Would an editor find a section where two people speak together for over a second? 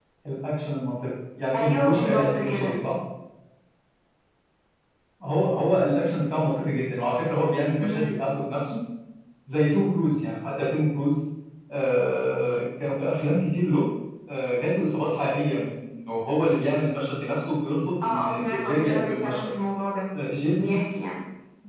Yes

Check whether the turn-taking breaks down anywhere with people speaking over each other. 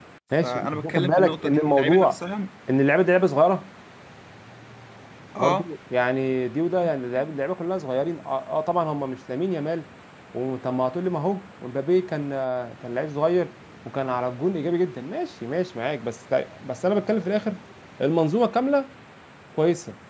Yes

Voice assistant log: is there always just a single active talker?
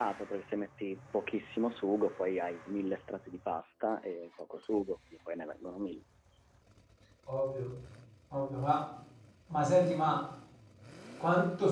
Yes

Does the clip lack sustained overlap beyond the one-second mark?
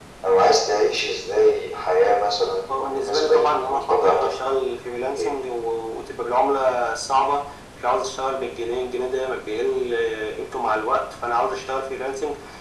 No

